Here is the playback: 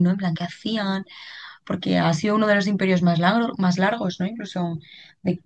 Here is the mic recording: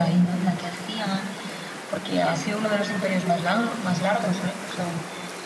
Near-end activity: none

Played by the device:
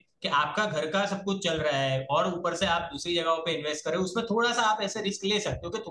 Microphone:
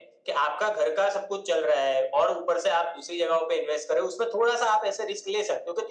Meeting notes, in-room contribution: none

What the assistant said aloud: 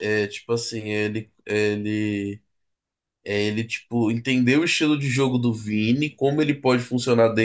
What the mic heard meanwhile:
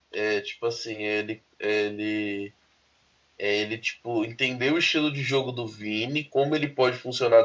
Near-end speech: none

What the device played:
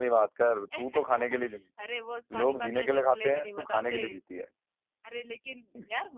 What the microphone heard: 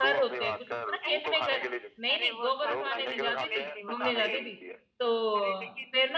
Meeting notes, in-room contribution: present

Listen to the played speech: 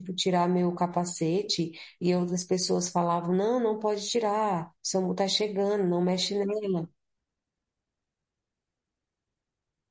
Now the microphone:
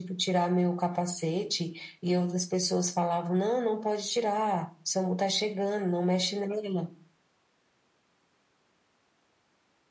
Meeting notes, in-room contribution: none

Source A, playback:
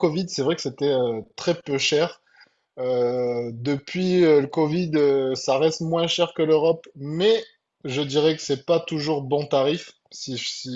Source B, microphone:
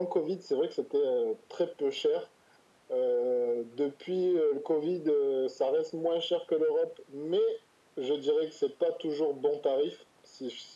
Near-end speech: none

